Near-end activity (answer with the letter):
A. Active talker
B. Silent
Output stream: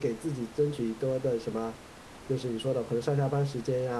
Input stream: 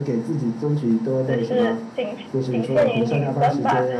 A